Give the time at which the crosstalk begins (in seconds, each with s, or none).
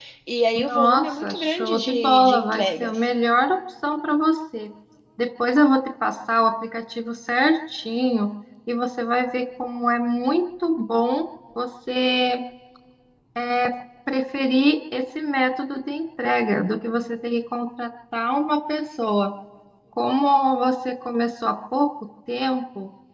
0.6 s